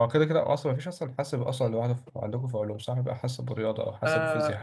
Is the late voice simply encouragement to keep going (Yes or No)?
No